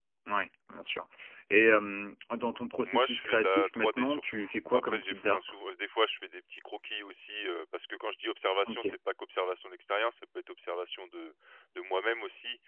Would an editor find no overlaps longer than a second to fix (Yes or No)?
No